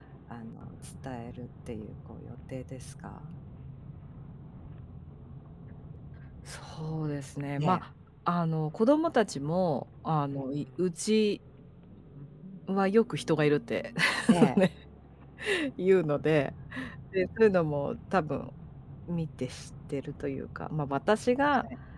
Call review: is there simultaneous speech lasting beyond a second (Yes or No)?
No